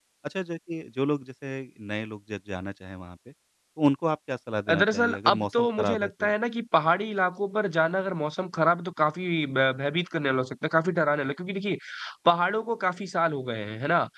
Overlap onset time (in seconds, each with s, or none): 4.7 s